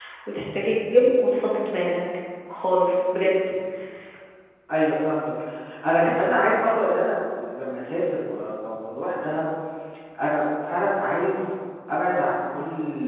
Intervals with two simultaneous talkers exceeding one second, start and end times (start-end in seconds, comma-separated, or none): none